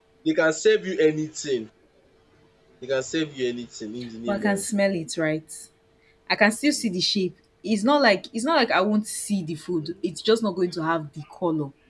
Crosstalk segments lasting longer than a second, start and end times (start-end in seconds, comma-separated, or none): none